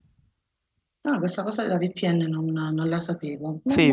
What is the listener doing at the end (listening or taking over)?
taking over